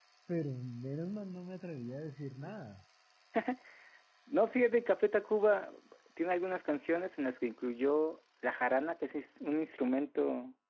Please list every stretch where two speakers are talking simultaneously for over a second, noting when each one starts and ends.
none

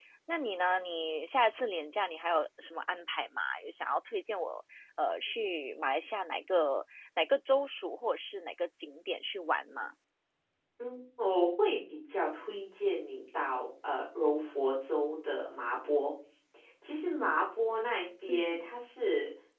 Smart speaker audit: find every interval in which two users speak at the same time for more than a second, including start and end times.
none

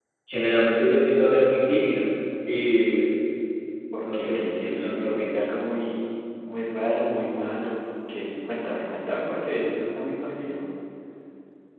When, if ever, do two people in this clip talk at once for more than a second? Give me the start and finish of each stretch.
4.0-5.2

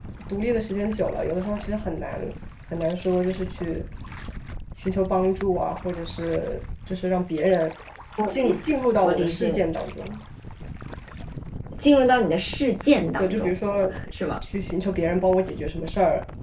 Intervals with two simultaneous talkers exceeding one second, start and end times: none

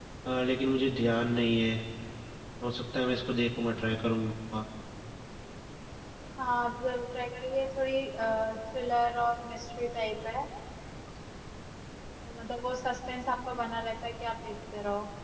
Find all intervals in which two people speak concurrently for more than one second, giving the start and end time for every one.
none

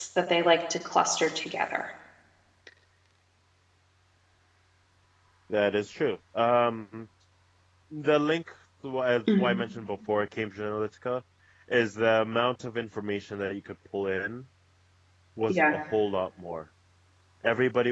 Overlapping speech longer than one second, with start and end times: none

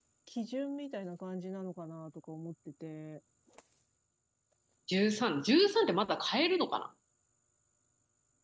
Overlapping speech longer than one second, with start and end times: none

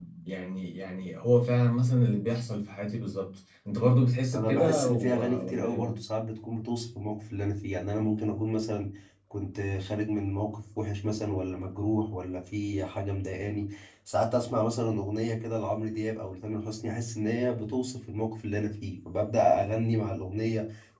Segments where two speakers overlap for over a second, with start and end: 4.3-5.9

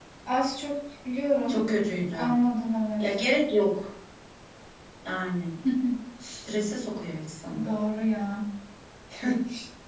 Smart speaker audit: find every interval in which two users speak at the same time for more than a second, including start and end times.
none

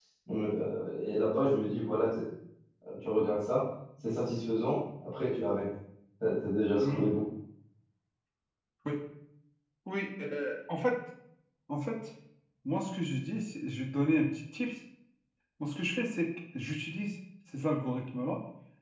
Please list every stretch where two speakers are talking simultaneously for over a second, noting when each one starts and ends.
none

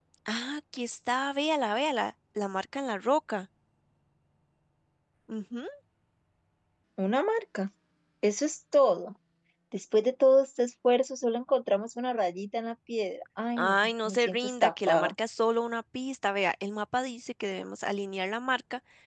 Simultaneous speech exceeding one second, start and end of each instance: 13.6-15.1

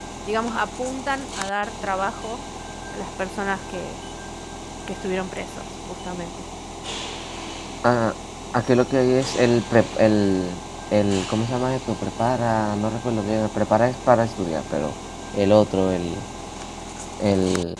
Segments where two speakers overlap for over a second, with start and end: none

